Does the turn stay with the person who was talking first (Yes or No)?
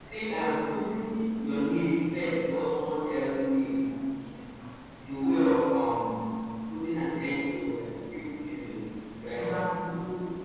Yes